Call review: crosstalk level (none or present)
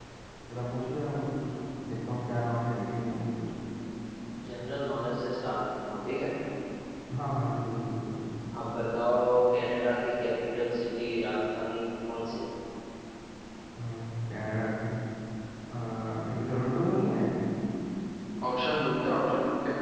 none